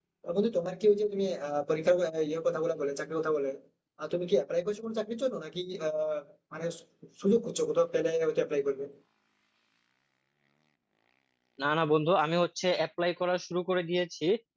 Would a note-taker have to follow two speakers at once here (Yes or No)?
No